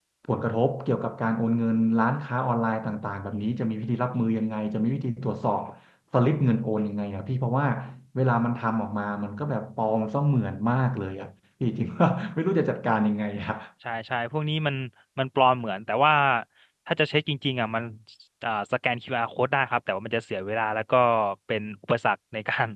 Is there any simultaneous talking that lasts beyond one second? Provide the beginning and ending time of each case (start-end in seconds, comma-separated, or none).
none